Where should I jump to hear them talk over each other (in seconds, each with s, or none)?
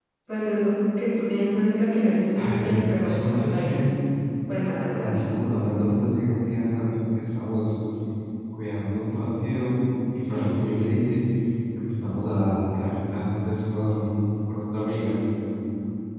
2.4 s